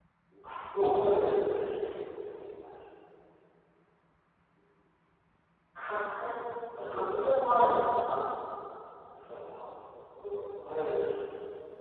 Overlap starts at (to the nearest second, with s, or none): 7 s